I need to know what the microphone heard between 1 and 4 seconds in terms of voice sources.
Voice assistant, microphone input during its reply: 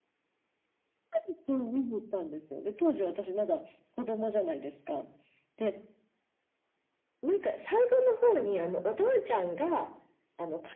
echo only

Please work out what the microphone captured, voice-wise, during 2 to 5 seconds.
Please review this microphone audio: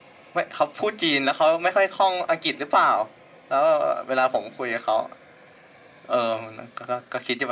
echo only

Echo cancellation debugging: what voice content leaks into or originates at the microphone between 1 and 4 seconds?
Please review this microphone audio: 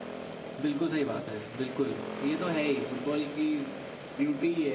user only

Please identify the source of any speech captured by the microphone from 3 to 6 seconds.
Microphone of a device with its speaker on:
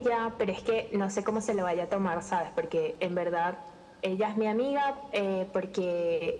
echo only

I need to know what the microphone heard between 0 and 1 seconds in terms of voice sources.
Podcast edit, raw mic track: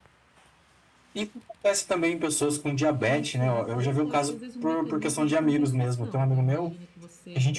neither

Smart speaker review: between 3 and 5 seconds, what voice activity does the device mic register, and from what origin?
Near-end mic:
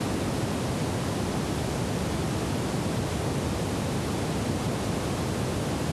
neither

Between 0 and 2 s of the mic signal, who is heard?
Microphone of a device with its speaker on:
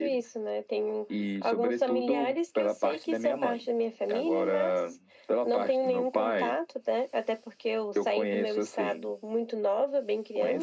echo only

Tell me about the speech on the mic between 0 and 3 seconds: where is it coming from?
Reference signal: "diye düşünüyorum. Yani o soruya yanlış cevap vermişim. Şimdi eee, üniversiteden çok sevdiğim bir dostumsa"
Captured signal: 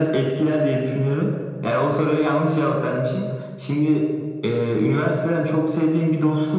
echo only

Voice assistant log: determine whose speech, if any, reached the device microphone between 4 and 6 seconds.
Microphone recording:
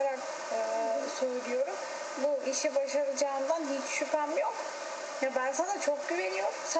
echo only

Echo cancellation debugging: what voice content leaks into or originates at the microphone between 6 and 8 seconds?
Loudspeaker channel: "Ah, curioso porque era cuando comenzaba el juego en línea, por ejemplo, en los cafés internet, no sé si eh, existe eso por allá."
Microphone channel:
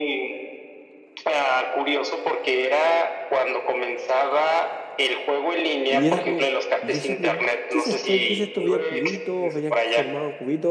both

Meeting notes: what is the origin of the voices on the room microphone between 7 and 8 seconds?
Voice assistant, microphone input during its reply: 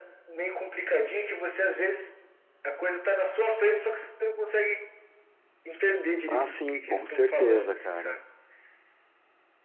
both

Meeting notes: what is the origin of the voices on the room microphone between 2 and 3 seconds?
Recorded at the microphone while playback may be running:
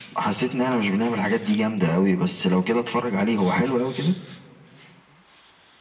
echo only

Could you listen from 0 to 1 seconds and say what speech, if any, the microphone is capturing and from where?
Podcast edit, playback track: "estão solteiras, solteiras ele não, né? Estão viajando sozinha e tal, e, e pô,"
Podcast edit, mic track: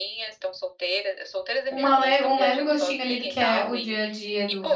echo only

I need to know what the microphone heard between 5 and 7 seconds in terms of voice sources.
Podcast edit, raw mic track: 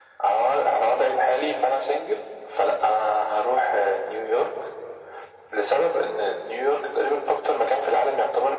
echo only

